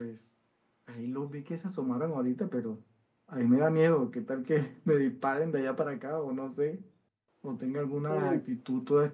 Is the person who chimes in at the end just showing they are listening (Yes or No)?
Yes